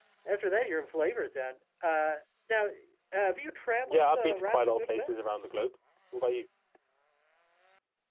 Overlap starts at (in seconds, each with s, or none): 3.9 s